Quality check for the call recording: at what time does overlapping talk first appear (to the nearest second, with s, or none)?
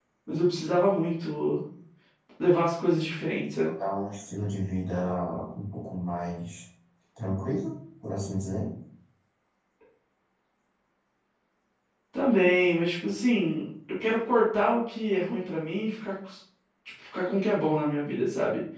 none